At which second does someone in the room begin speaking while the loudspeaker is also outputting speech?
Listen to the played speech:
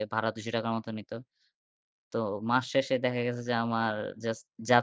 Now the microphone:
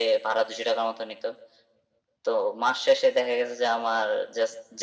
none

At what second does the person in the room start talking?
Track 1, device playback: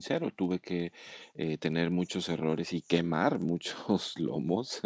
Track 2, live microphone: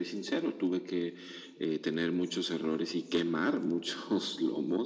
none

